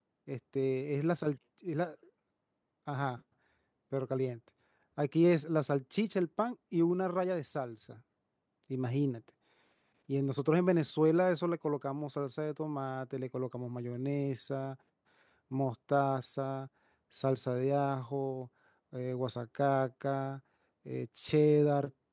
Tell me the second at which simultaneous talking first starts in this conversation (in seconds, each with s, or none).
none